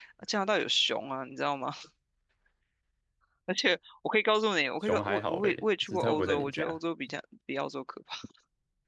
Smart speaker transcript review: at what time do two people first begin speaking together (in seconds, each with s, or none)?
4.8 s